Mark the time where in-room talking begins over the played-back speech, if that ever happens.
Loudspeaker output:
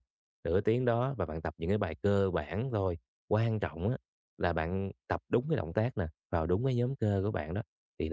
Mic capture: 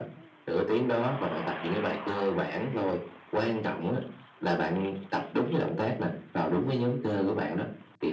none

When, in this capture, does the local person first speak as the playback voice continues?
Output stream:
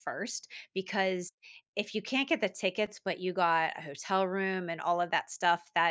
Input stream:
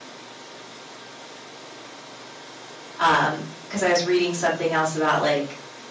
3.0 s

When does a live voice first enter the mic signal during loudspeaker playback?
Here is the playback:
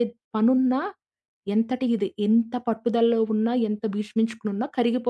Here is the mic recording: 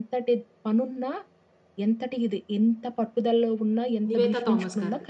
4.1 s

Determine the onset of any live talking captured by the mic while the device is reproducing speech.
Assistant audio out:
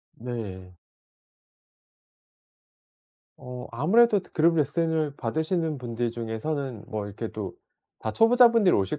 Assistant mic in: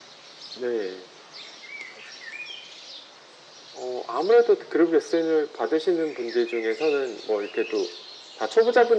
none

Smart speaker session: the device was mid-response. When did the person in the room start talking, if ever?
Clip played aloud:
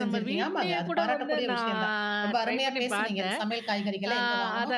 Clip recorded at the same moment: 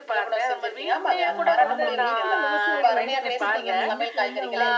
1.3 s

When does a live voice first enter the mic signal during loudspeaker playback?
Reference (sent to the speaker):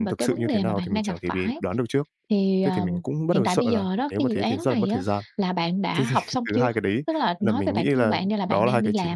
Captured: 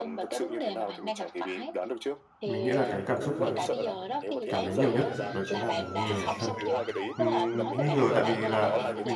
2.4 s

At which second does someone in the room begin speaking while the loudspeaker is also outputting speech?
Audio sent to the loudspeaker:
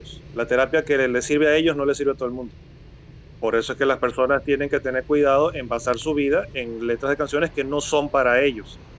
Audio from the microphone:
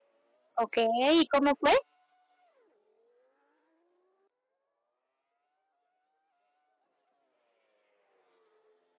0.6 s

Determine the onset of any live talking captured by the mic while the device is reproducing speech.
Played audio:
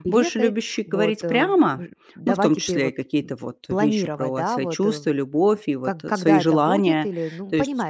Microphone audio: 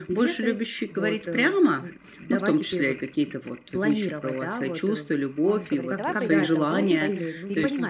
5.4 s

